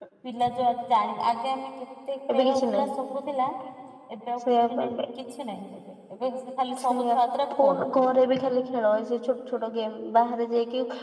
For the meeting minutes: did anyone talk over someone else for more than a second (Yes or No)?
No